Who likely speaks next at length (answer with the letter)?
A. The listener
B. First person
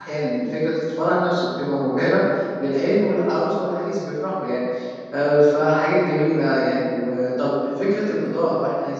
B